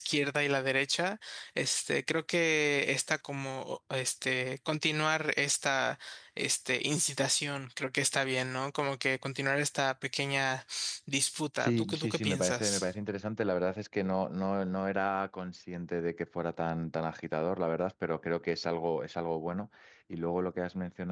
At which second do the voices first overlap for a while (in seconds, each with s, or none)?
11.6 s